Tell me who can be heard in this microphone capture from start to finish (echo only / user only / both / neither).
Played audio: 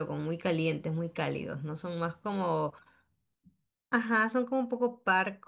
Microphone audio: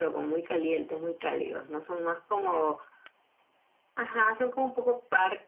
echo only